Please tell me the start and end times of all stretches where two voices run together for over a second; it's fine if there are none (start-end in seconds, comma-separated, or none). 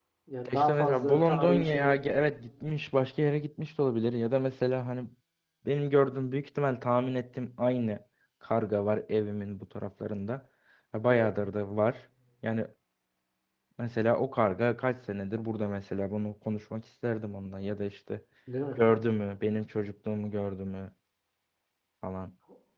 0.5-1.9